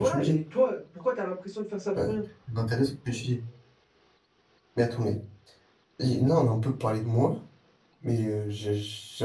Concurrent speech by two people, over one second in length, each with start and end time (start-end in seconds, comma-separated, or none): none